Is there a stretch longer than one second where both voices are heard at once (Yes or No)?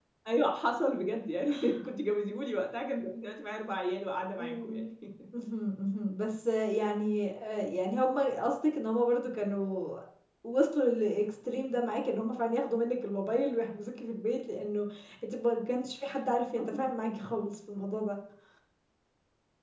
No